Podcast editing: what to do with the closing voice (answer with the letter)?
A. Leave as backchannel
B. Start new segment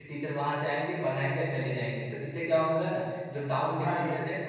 A